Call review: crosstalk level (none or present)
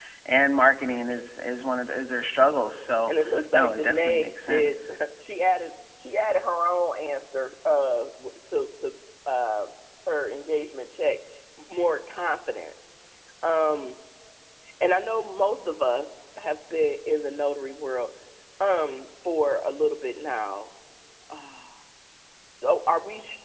present